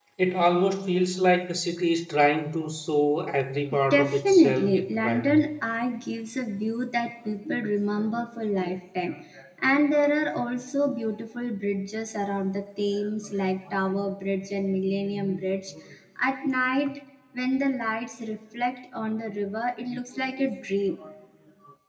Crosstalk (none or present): present